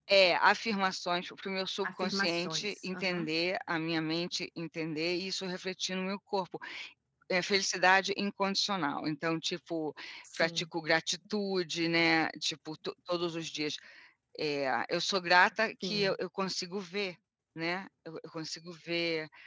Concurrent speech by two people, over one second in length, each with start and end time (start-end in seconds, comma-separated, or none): 1.8-3.3